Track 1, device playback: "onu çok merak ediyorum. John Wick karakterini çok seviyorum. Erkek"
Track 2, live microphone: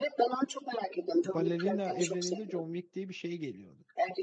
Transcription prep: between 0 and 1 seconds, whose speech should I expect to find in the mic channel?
echo only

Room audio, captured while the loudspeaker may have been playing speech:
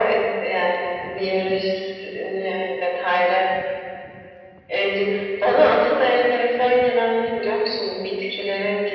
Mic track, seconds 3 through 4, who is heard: echo only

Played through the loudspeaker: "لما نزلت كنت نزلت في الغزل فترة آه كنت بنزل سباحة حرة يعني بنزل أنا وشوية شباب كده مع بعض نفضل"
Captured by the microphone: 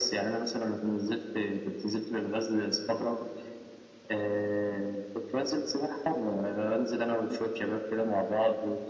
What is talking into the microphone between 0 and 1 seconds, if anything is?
echo only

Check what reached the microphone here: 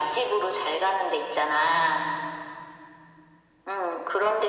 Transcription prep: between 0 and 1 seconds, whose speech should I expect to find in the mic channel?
echo only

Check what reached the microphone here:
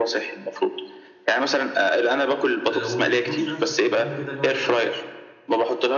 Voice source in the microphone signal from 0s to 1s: echo only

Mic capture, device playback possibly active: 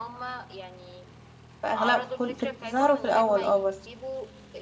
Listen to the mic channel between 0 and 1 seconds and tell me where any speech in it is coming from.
echo only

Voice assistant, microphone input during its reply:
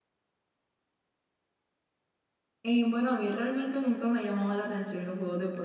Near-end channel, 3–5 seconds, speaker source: user only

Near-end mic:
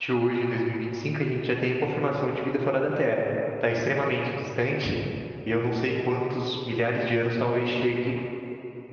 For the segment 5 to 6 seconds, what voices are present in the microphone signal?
user only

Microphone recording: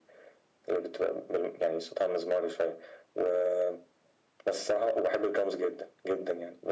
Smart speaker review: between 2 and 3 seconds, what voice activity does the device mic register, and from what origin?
echo only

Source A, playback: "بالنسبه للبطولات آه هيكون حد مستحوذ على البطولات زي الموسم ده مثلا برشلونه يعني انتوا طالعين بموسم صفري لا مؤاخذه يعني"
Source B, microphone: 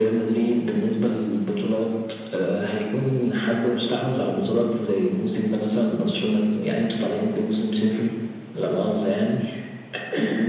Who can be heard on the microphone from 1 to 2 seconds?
echo only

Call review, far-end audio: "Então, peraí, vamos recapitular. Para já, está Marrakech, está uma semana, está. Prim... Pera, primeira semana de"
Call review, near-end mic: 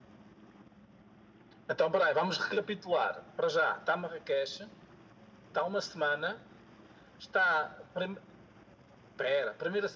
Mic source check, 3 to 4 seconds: echo only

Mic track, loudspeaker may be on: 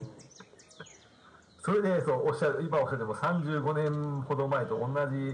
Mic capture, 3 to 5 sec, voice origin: echo only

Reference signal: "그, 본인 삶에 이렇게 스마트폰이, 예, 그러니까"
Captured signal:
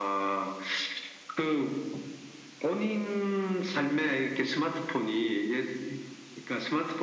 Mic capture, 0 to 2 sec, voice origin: echo only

